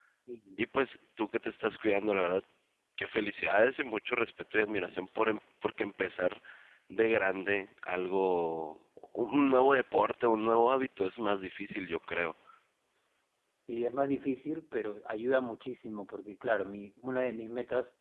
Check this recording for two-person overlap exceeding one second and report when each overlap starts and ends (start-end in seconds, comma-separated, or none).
none